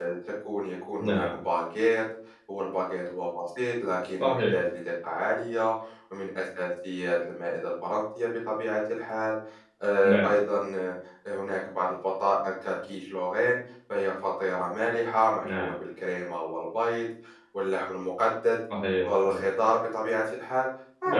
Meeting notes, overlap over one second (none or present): none